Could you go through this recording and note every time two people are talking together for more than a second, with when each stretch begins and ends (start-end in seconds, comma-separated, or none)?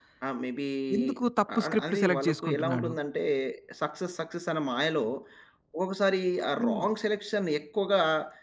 1.6-2.9